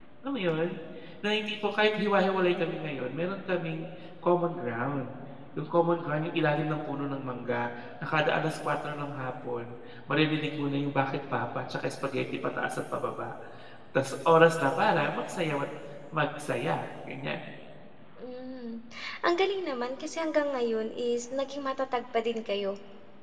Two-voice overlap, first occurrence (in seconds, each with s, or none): none